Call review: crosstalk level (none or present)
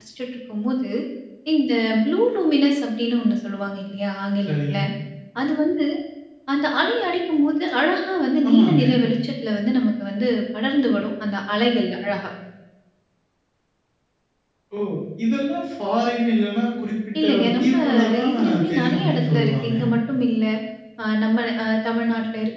present